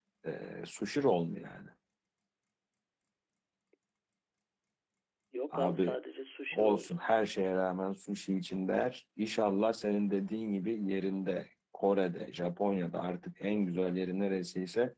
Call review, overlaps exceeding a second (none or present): none